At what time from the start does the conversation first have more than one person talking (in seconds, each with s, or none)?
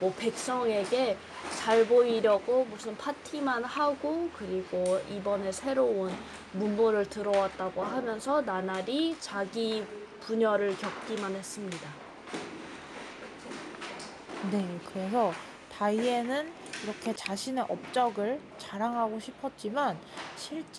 none